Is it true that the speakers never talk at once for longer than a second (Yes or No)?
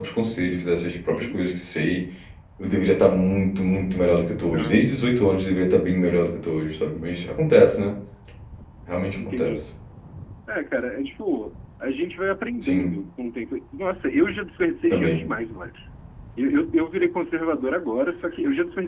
Yes